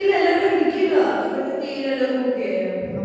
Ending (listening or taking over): taking over